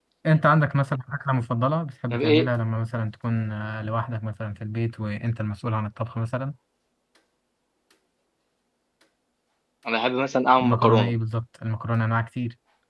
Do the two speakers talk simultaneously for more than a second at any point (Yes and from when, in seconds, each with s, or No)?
No